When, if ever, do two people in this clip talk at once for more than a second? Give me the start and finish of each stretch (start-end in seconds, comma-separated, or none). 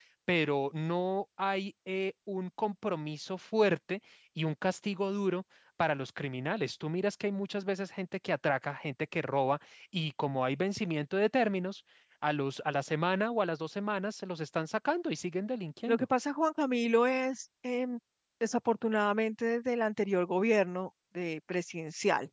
none